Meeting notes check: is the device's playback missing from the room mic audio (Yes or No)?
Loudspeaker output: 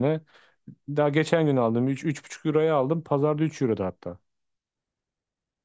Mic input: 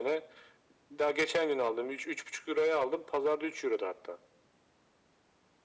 No